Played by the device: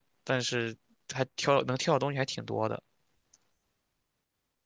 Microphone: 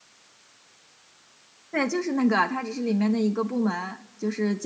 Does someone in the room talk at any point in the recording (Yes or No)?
Yes